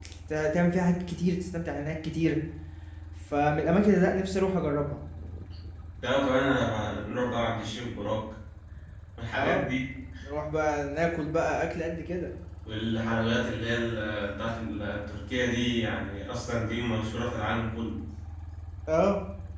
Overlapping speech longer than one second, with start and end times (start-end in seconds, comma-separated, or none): none